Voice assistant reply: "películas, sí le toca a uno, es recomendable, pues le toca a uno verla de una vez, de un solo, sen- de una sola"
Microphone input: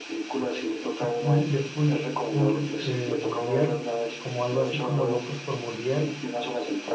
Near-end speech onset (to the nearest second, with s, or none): 1 s